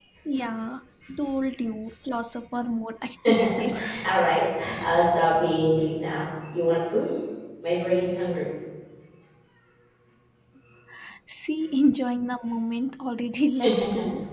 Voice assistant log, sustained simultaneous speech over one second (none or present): none